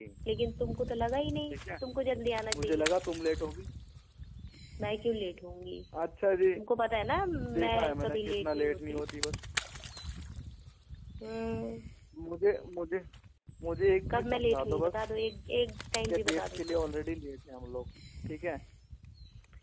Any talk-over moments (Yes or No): Yes